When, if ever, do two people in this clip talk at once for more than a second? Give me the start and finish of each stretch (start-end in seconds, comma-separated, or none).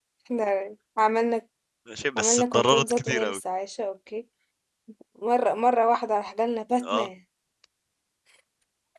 2.2-3.4